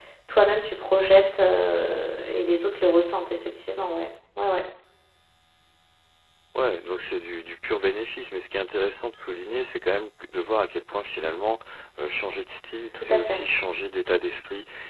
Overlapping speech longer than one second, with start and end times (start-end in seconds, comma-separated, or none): none